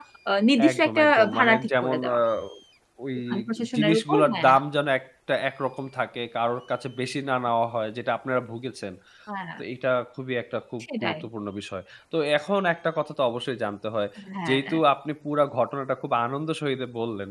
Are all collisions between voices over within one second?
No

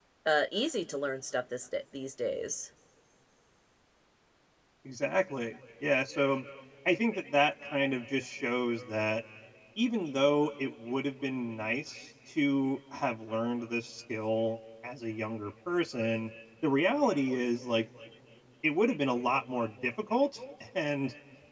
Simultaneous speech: No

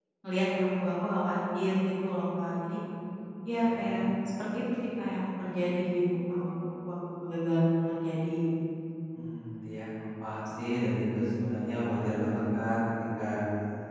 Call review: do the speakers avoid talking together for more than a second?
Yes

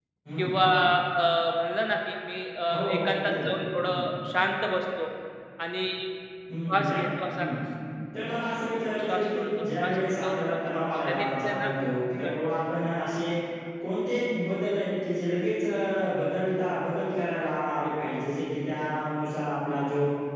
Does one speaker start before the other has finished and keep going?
Yes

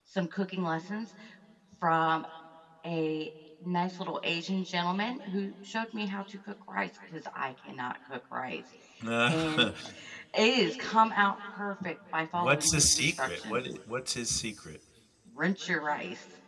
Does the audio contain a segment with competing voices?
Yes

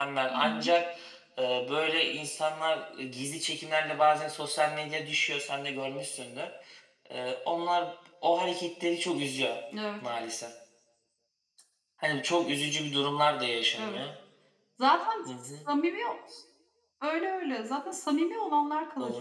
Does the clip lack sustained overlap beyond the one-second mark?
Yes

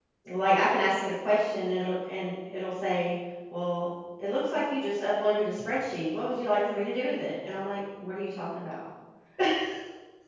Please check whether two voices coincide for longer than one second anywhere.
No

